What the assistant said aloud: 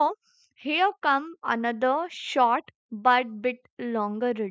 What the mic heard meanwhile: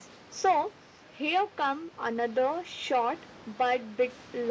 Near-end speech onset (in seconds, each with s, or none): none